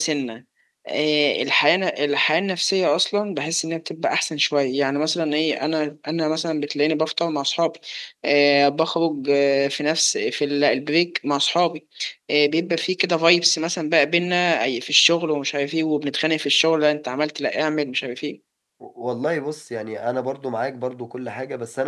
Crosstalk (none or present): none